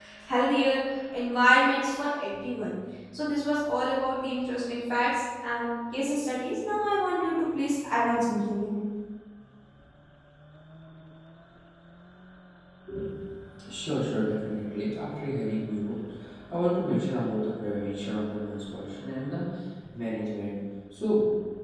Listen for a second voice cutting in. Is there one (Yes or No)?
No